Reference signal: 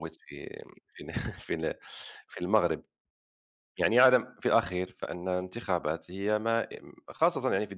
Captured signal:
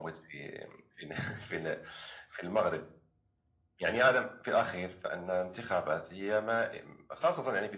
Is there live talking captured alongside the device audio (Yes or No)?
No